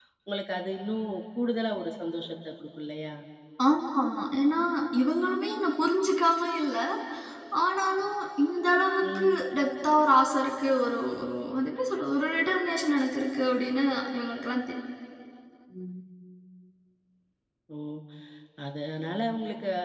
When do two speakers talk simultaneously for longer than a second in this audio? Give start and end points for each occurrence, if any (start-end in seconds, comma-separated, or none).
none